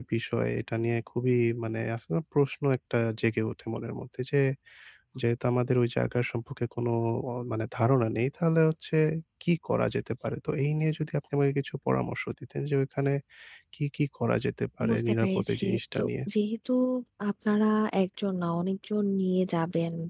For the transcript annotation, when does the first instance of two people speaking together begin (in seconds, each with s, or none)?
14.8 s